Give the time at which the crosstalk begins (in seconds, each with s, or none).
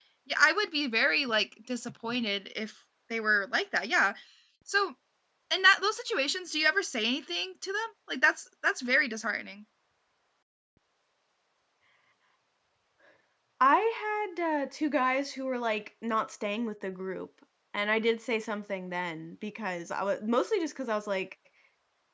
none